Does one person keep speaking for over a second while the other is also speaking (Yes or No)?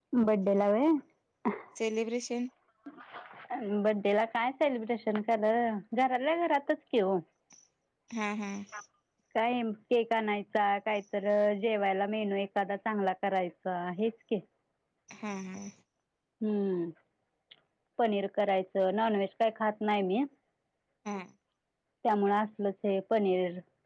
No